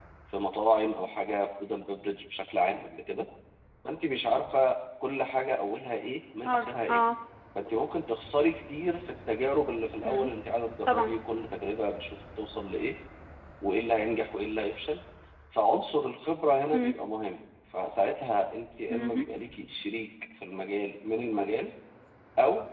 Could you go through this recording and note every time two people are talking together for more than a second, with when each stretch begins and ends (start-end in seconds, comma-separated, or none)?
none